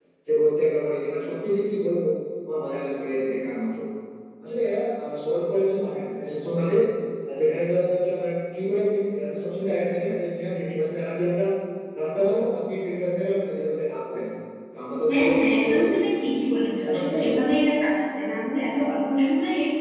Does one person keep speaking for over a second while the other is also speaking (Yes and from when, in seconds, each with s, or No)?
Yes, from 15.1 s